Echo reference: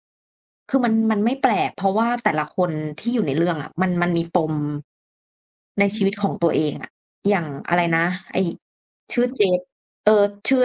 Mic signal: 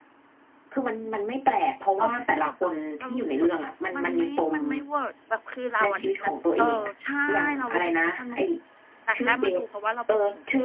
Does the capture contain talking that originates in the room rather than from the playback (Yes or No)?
Yes